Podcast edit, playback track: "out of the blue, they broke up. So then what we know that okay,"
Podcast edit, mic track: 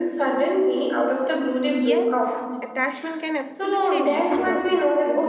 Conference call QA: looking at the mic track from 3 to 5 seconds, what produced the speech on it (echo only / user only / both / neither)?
both